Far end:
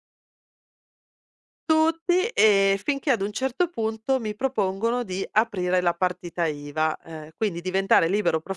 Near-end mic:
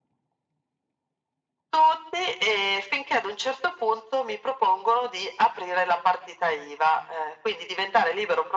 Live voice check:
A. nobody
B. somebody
A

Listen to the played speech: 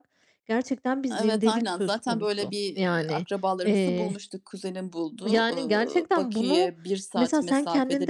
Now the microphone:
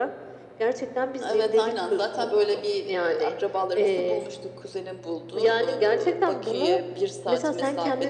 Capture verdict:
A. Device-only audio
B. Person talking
A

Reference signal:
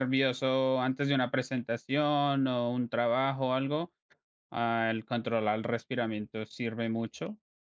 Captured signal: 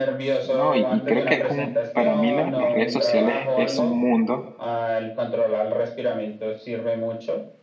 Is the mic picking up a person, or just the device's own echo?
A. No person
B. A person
B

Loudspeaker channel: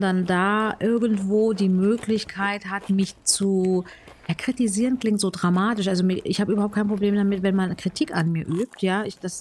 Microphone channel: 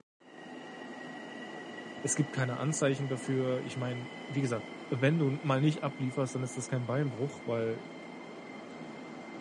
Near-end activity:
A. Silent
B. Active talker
B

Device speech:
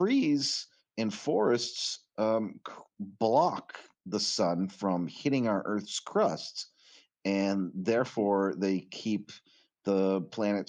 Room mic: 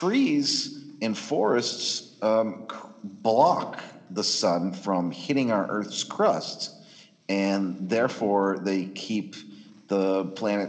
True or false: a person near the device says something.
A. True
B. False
B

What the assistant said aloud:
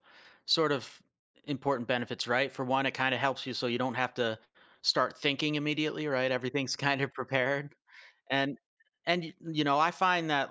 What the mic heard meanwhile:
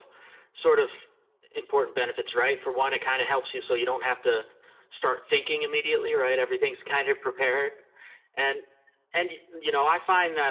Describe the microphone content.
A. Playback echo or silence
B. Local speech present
A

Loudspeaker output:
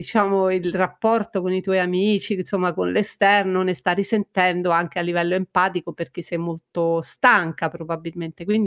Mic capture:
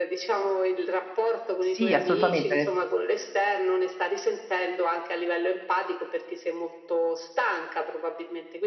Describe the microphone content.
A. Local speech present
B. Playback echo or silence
A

